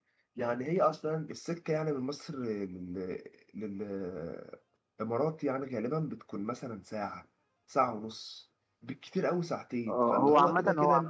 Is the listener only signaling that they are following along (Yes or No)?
No